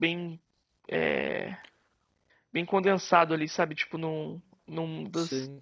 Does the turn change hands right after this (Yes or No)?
No